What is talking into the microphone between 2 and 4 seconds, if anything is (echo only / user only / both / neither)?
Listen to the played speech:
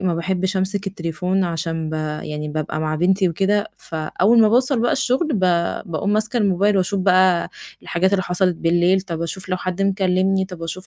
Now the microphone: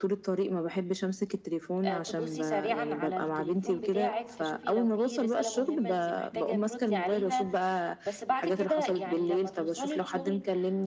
both